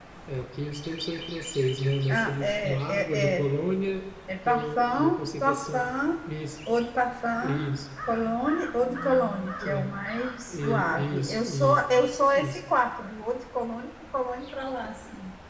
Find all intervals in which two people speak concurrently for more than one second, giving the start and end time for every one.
2.1-3.5, 4.5-5.9, 10.5-11.8

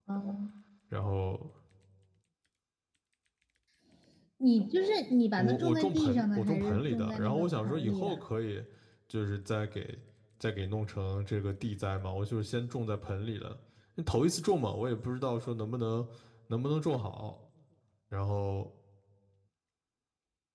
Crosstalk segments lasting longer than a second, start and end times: 5.4-8.2

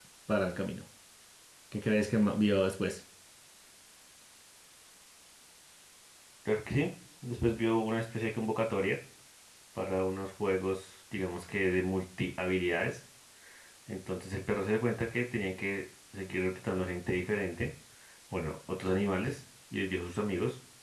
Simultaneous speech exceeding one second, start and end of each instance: none

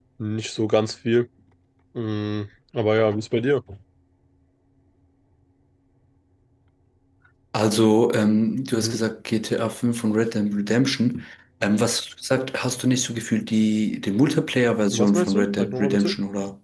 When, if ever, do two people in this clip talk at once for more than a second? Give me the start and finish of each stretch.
14.9-16.1

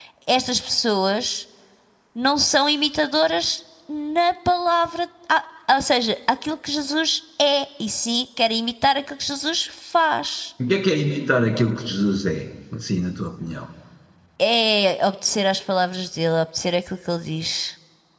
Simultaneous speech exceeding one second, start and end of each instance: none

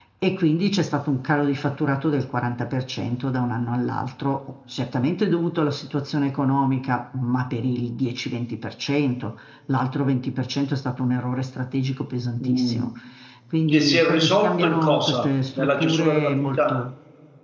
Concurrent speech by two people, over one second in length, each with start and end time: 13.7-16.8

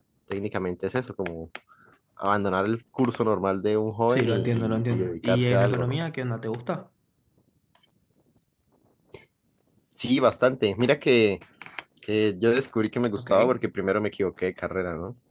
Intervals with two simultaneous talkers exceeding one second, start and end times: 4.1-6.0

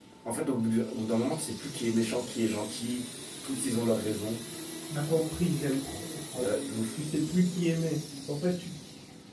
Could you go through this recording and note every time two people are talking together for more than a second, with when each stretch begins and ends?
none

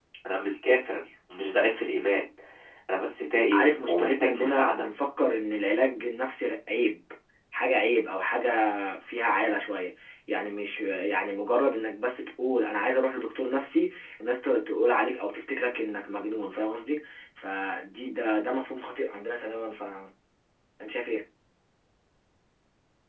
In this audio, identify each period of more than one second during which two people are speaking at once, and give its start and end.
3.5-4.9

